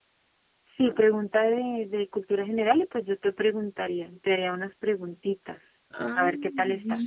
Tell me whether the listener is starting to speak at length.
Yes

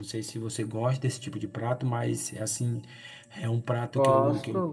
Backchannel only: No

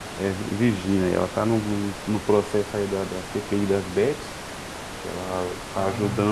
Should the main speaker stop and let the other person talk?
No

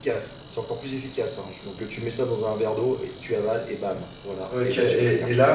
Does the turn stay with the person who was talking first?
No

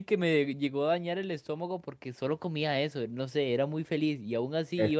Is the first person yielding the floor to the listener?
No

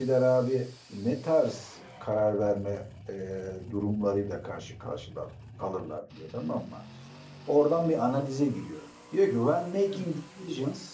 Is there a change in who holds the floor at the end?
No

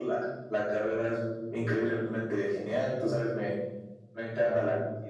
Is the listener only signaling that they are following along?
Yes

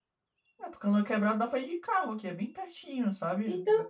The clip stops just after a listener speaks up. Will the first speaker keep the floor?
No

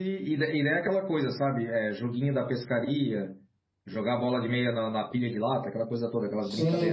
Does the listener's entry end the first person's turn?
Yes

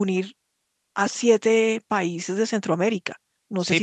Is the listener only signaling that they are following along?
No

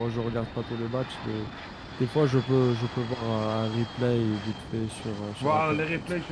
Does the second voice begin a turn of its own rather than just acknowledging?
Yes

